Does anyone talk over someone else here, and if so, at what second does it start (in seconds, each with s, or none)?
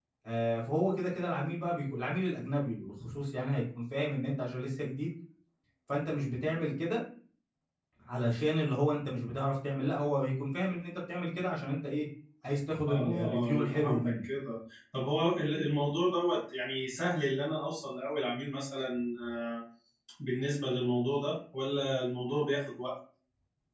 12.9 s